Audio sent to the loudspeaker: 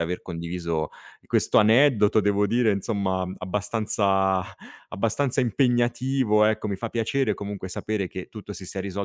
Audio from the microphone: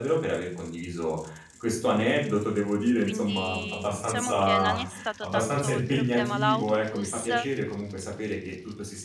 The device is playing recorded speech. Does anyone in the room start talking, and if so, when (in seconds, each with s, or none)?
3.0 s